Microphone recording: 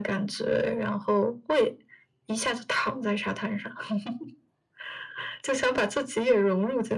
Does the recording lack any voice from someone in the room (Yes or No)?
Yes